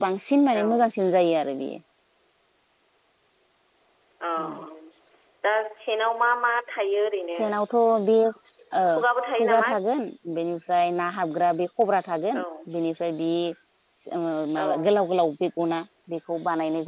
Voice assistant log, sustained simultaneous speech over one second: none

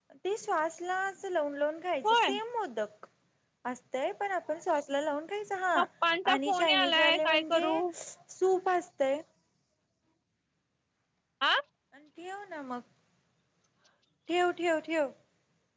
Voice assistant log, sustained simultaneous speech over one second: present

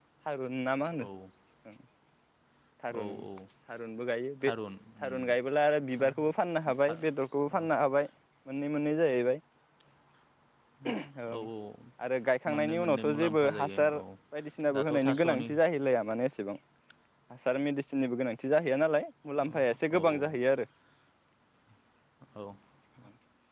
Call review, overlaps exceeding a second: present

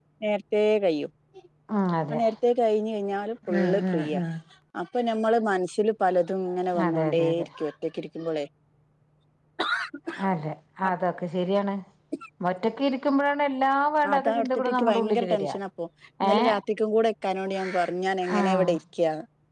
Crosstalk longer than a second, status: present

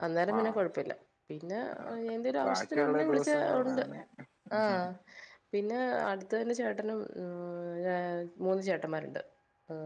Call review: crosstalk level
present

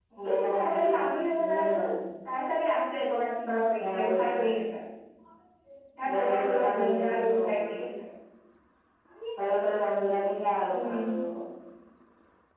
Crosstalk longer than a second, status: present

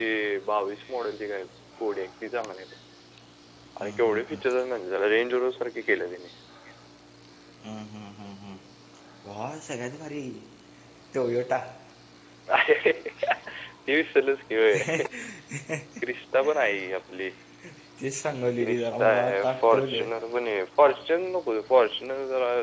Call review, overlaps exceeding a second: present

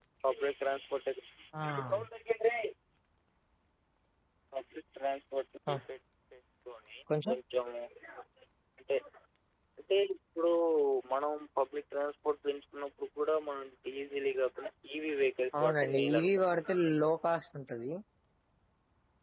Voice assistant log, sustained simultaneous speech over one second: present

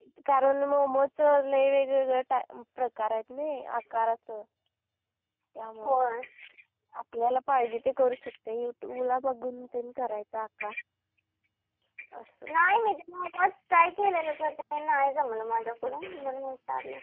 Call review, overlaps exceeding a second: none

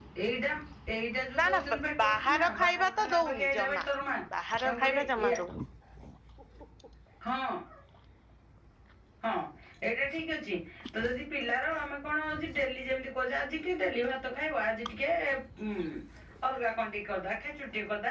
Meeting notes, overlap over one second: present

